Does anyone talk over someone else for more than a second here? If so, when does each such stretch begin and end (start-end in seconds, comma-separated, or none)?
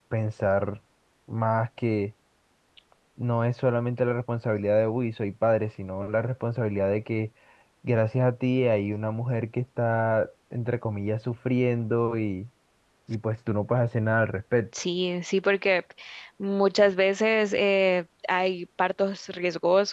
none